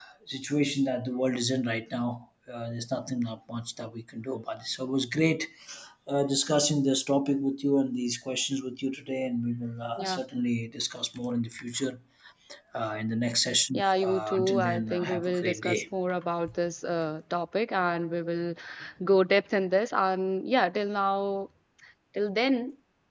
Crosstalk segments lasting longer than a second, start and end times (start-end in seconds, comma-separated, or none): 13.7-15.8